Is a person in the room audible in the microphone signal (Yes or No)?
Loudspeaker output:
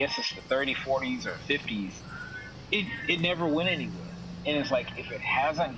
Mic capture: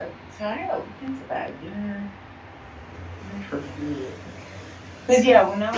Yes